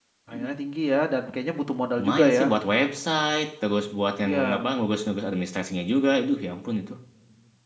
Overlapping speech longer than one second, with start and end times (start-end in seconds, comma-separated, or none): none